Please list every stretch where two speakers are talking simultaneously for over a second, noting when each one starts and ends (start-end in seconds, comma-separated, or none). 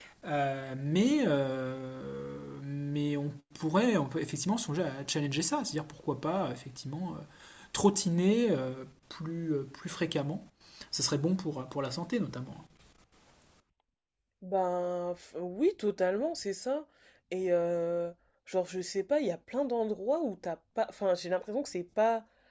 none